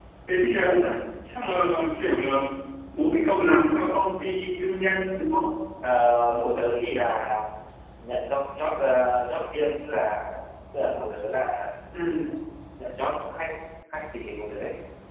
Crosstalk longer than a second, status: none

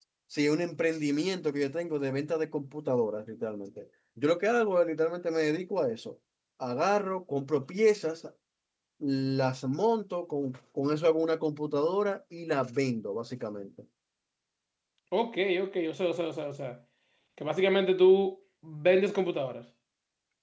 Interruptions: none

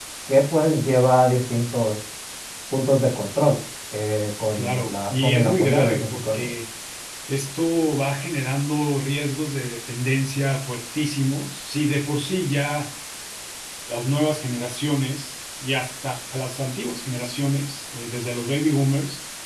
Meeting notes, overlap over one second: present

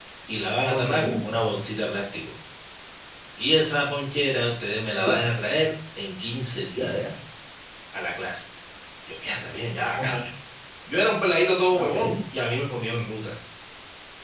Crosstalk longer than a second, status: none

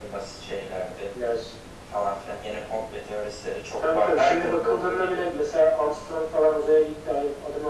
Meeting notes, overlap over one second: present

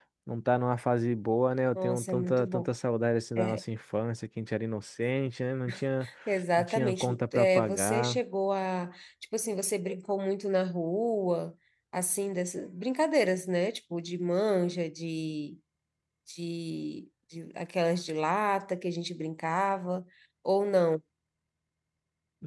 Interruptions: present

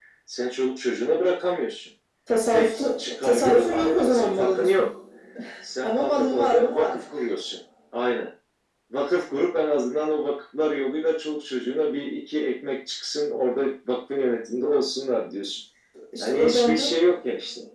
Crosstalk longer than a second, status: present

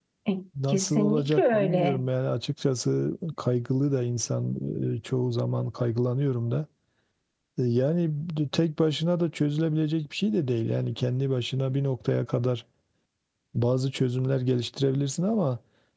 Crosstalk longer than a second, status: present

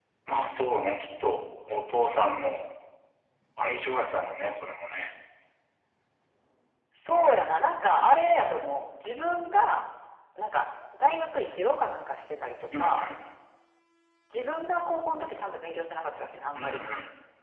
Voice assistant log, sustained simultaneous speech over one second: none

